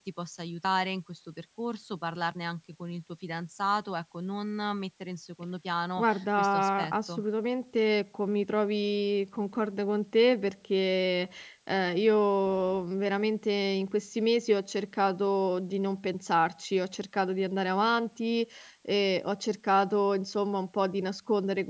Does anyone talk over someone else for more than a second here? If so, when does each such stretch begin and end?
6.0-7.2

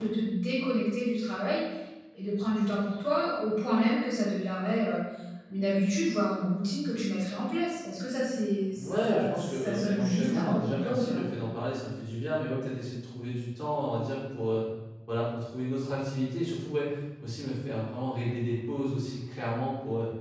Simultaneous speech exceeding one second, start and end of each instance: 8.7-11.2

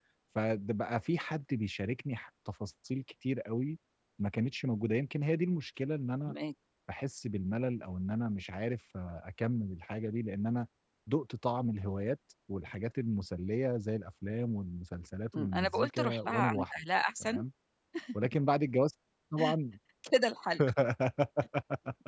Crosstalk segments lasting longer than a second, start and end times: 15.4-16.8

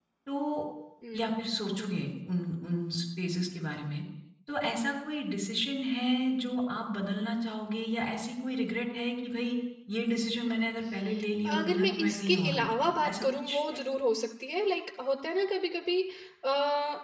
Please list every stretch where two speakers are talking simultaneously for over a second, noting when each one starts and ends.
11.5-13.8

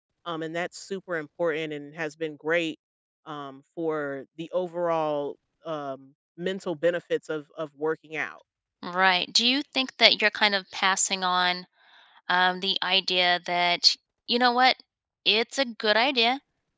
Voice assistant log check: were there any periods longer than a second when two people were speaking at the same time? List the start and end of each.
none

